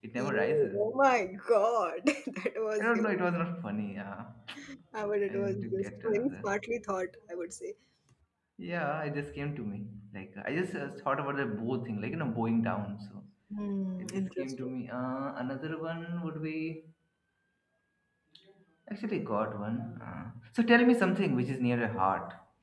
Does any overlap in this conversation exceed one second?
Yes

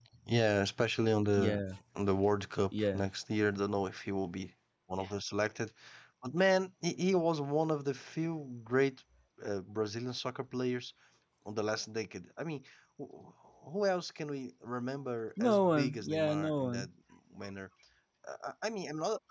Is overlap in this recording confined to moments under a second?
No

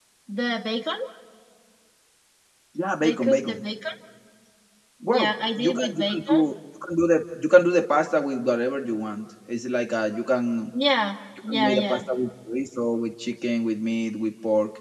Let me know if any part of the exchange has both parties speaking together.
Yes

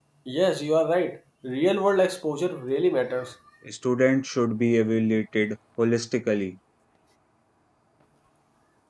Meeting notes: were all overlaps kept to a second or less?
Yes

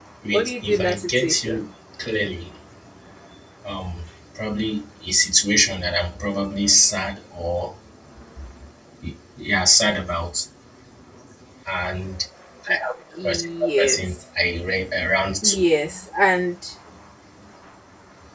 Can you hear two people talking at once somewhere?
Yes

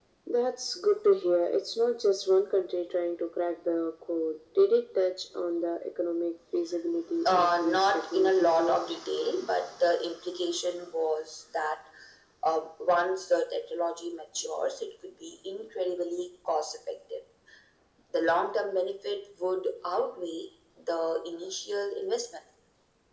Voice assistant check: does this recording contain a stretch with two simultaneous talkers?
Yes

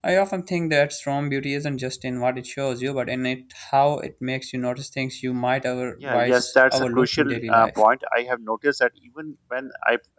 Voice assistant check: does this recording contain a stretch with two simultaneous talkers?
Yes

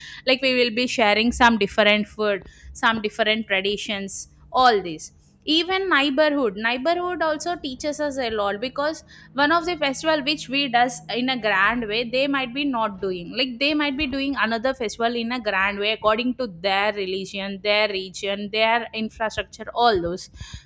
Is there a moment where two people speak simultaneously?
No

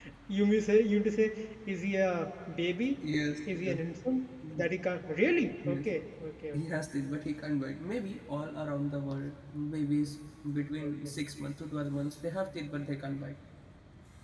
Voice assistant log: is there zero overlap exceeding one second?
Yes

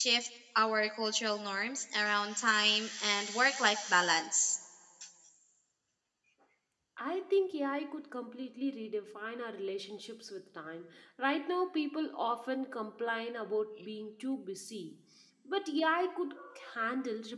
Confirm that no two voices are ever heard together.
Yes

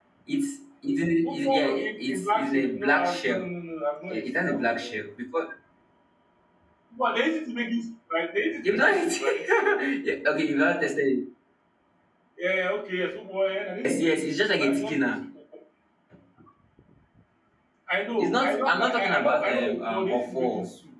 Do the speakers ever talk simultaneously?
Yes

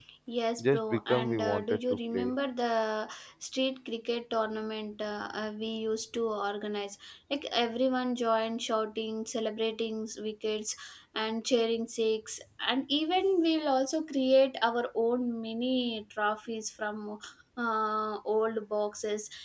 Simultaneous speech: Yes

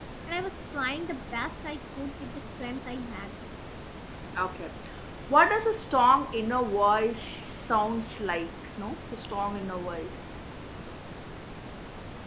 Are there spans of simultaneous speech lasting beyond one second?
No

